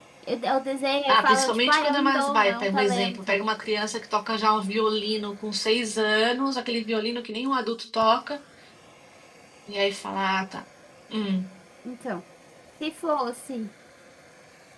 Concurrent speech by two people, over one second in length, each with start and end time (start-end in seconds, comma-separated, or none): 1.1-3.4